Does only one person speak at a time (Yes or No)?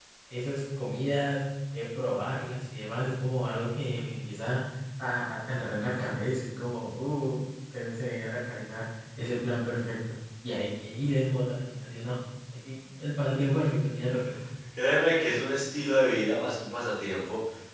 Yes